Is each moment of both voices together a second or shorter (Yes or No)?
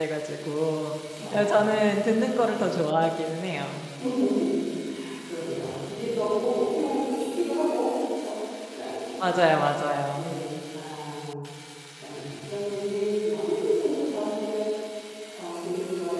Yes